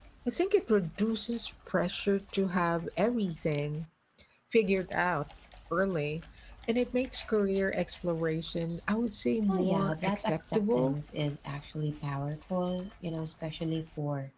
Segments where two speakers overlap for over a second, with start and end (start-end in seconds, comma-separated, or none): 9.5-10.9